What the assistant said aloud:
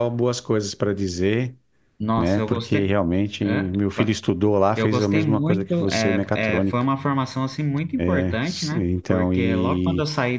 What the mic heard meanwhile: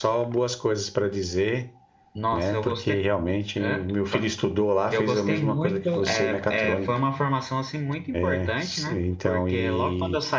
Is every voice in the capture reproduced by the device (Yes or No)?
Yes